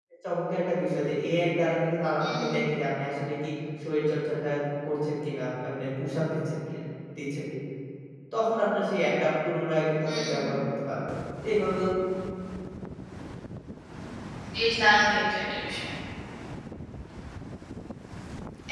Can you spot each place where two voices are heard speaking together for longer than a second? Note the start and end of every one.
none

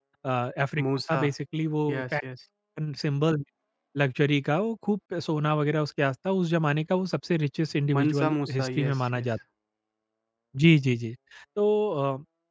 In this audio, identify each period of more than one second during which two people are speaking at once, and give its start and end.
7.9-9.3

